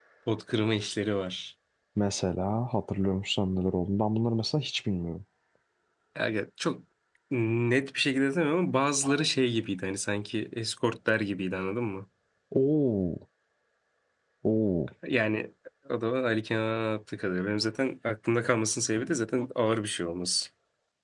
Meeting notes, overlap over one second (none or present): none